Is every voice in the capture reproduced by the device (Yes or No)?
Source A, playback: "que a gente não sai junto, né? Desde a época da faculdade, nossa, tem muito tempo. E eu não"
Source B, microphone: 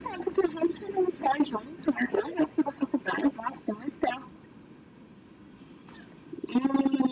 Yes